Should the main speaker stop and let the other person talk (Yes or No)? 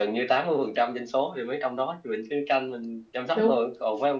No